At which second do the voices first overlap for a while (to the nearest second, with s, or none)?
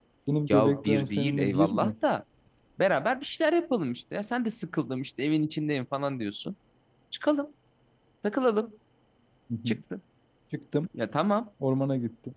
1 s